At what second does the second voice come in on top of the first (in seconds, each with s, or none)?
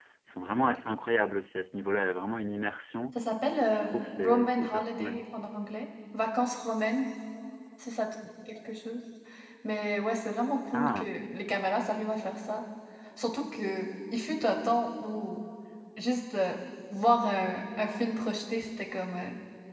3.7 s